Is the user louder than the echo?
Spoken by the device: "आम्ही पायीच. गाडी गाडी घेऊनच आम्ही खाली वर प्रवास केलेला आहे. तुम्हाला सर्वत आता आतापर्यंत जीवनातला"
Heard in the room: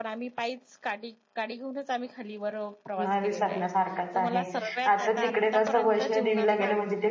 Yes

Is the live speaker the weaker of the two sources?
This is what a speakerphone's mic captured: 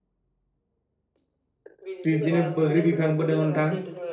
No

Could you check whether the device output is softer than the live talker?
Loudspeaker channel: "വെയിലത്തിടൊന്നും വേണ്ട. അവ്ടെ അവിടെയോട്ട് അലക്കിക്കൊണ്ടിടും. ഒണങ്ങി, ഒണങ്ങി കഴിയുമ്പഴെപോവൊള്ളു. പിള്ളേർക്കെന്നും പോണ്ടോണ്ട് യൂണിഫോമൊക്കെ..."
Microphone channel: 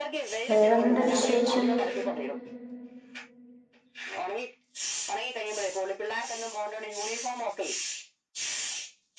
Yes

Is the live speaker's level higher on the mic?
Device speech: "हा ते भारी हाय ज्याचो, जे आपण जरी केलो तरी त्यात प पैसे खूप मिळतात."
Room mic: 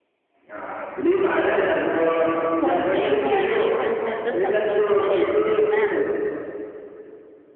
No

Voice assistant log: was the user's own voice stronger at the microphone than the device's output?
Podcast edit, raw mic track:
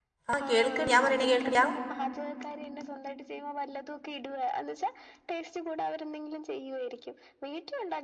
Yes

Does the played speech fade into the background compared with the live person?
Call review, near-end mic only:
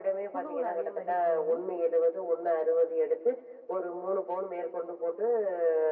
No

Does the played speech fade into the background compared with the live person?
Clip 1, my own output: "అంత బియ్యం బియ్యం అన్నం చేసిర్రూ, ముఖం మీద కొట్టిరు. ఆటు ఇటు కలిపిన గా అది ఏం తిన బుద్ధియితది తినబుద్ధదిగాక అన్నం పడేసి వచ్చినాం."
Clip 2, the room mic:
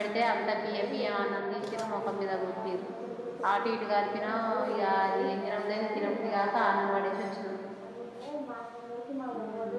No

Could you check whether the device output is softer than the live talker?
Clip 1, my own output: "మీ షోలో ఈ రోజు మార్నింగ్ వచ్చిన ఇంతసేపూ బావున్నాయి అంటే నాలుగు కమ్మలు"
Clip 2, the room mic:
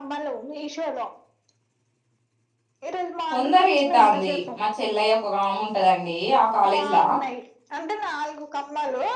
Yes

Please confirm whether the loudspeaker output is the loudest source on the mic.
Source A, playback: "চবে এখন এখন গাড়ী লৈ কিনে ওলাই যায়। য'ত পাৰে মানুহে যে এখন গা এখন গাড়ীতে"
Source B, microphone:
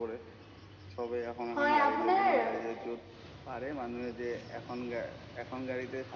No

